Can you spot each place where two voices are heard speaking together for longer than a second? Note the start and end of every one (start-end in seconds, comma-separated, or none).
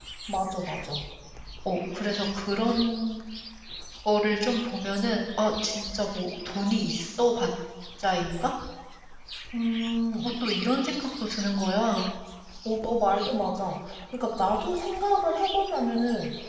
none